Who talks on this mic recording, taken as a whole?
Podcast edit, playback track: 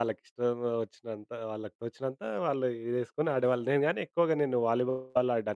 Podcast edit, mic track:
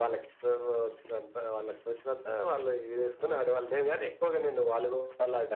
echo only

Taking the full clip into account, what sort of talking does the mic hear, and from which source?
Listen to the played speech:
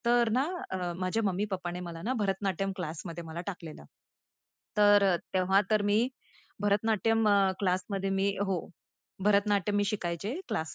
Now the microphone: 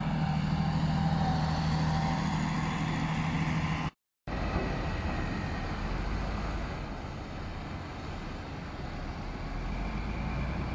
neither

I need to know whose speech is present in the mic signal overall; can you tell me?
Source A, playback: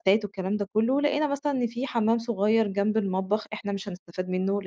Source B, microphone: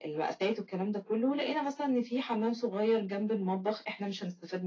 echo only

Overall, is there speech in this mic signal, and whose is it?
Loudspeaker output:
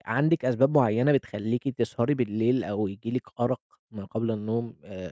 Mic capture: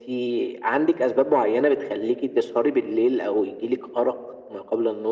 echo only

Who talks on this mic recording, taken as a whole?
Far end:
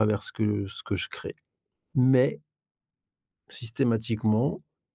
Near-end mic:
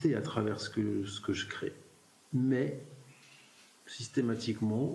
echo only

